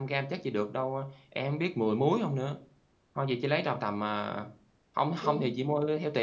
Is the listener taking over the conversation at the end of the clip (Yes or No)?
No